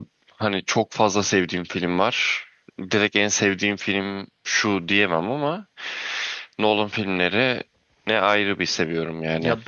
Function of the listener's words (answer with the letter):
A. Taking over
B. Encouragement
A